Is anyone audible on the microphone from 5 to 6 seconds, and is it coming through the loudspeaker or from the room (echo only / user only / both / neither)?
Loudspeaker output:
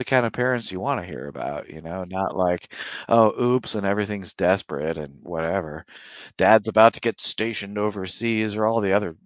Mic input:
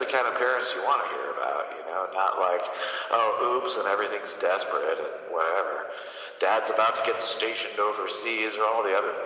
echo only